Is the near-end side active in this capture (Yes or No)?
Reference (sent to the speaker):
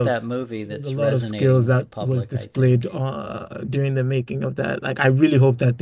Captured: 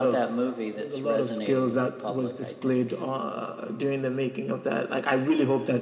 No